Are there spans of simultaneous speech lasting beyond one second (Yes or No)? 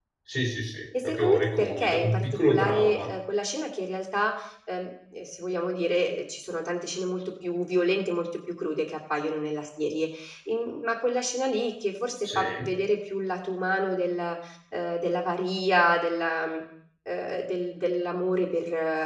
Yes